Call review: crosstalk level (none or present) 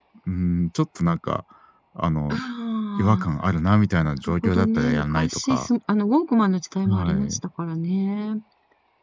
present